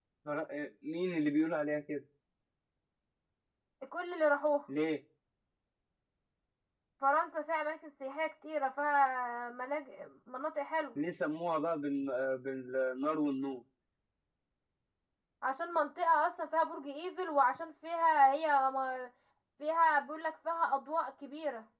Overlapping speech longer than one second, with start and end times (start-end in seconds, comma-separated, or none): none